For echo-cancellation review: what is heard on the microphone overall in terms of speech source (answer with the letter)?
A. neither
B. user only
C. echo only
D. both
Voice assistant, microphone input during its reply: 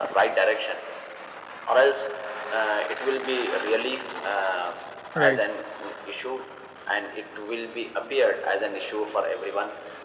D